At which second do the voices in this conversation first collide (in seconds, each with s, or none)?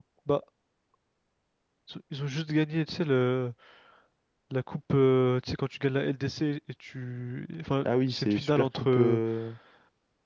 7.8 s